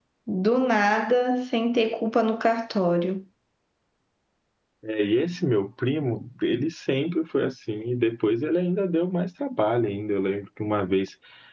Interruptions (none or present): none